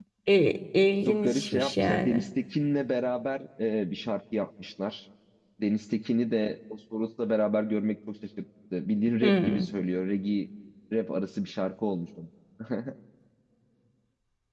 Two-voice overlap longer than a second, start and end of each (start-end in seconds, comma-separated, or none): 1.1-2.3